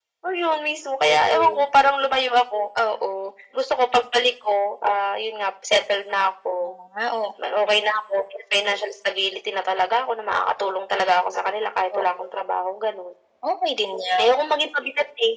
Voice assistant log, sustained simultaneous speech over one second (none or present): none